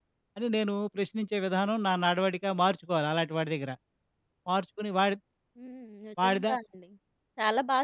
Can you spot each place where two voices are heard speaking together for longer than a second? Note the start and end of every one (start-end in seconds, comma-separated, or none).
none